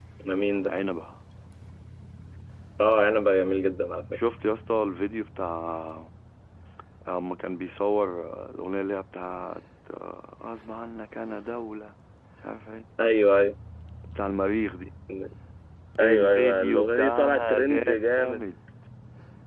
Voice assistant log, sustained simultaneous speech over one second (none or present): present